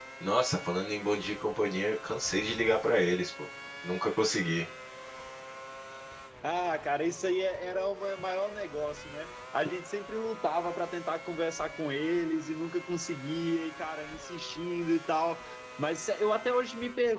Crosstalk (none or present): none